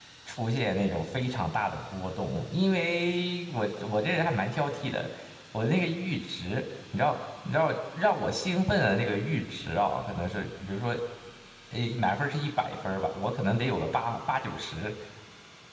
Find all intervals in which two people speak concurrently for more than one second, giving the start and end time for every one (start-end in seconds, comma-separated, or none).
none